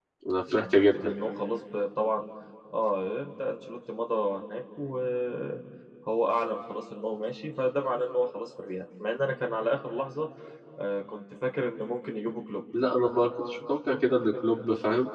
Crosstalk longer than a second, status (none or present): none